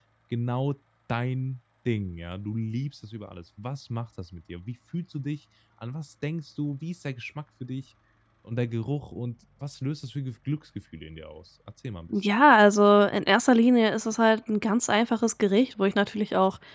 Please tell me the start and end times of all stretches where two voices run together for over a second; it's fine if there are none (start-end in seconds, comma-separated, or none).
none